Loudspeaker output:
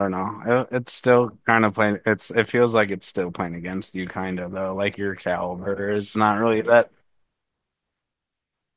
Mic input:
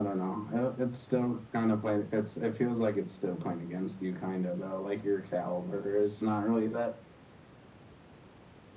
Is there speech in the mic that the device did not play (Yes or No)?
No